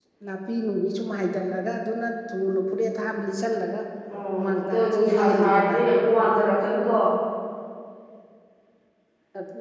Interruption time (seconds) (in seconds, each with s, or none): 4.4 s